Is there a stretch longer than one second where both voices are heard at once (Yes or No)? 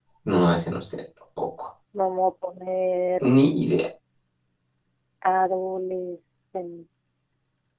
No